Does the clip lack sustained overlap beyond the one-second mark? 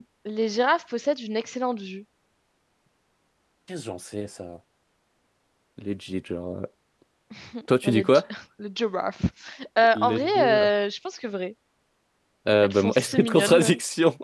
No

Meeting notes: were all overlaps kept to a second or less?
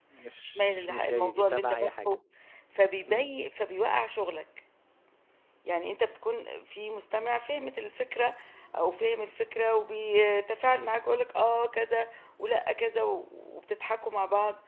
No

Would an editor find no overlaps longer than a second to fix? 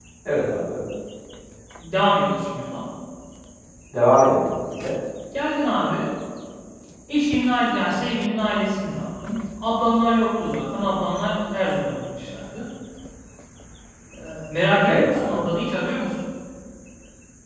Yes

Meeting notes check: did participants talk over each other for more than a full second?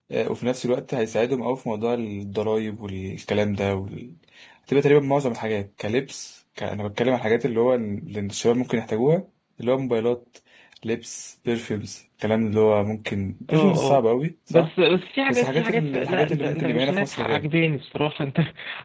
Yes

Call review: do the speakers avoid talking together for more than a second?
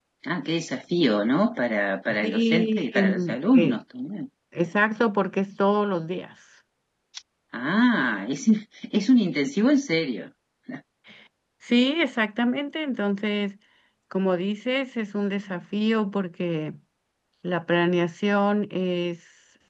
No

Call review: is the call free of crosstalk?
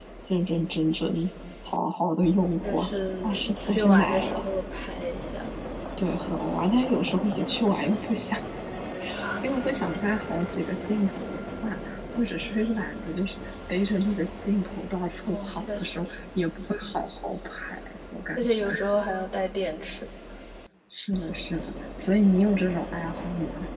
No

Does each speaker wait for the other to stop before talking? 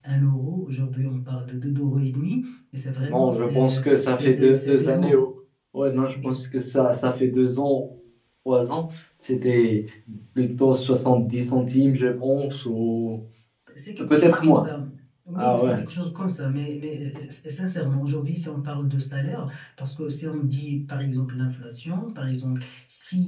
No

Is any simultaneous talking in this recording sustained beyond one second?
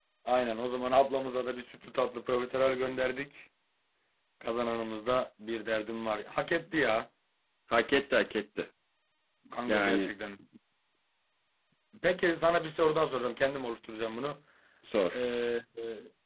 No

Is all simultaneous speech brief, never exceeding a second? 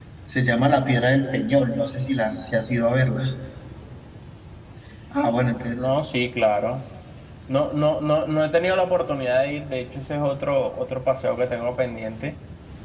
Yes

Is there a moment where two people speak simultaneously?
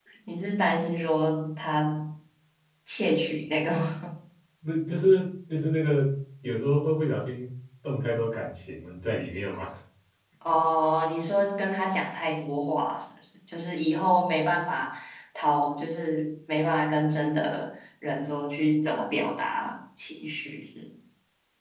No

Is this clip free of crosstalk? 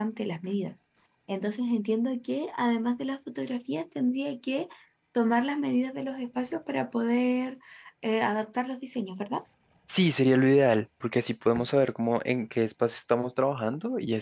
Yes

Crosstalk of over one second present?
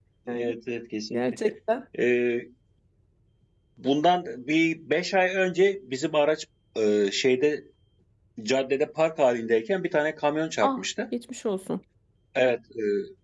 No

